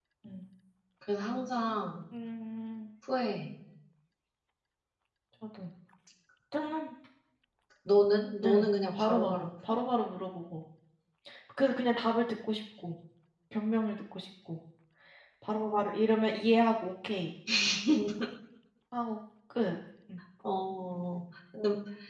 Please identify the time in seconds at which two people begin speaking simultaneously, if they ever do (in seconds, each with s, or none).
8.4 s